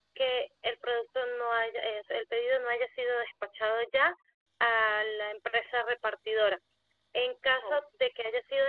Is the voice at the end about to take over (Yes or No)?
No